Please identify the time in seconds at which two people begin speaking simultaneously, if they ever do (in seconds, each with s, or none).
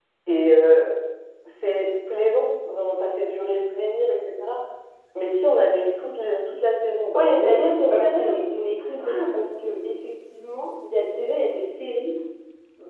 7.1 s